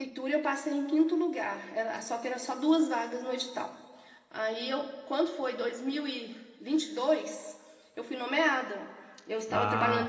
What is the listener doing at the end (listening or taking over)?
listening